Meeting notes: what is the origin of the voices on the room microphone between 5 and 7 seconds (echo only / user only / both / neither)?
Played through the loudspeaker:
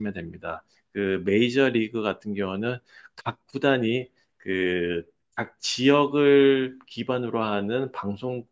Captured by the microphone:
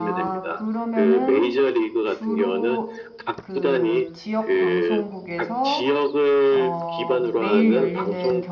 both